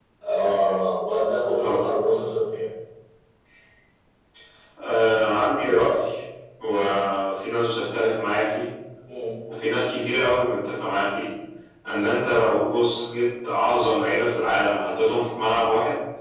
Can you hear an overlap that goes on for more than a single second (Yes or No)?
No